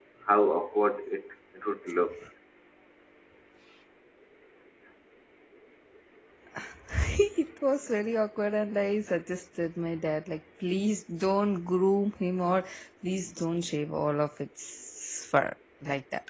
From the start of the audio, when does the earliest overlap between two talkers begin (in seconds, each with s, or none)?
none